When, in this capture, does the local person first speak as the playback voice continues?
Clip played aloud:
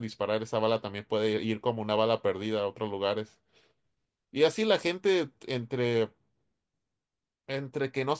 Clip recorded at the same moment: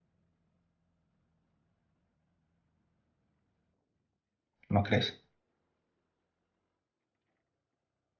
4.7 s

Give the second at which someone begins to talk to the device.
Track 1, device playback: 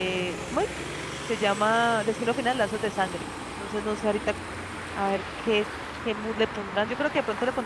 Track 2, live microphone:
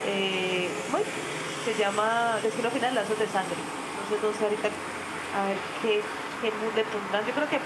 none

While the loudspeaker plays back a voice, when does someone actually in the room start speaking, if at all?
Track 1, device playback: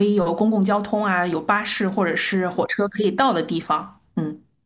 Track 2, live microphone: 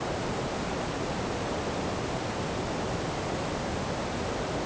none

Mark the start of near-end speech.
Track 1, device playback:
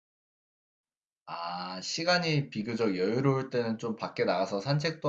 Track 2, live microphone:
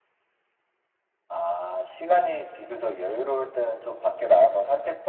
none

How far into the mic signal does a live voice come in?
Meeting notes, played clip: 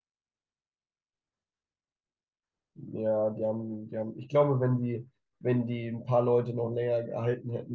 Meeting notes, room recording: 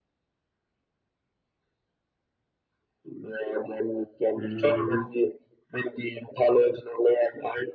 4.3 s

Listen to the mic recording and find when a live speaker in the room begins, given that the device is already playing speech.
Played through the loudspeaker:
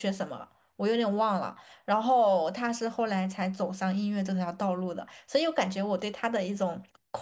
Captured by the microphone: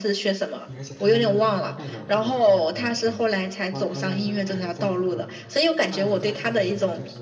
0.6 s

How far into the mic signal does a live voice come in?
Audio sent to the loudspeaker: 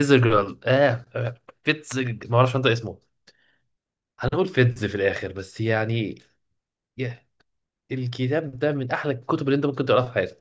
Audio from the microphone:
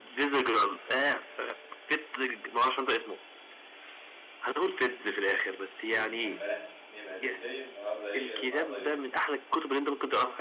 5.9 s

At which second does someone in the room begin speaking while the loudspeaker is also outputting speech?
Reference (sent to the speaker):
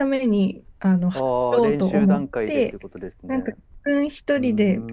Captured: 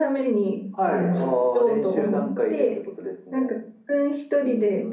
0.7 s

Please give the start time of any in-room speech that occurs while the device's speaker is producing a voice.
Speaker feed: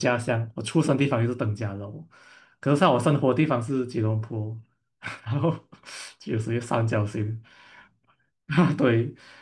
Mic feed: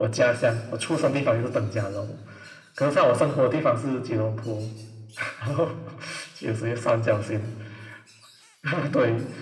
none

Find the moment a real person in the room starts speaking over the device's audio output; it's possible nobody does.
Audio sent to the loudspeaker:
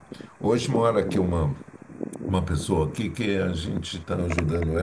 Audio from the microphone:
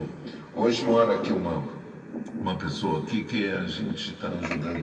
none

